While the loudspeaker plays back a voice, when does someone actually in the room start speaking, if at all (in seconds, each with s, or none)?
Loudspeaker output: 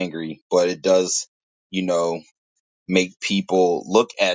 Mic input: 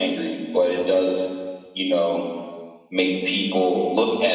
none